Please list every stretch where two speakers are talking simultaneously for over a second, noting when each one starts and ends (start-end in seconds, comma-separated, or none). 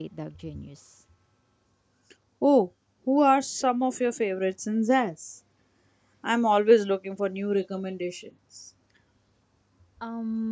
none